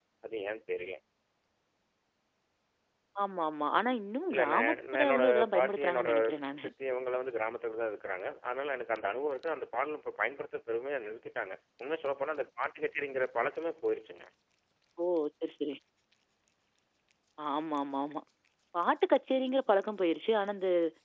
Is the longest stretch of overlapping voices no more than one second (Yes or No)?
No